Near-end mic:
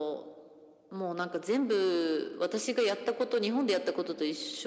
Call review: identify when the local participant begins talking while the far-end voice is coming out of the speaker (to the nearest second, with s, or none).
none